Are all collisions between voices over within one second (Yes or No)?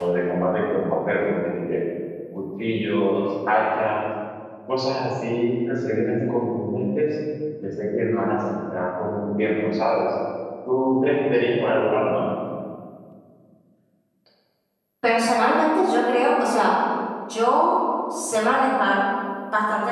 Yes